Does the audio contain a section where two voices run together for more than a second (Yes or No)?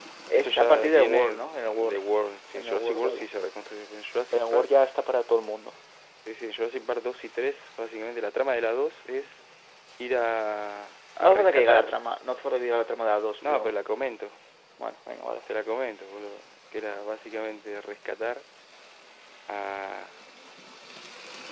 Yes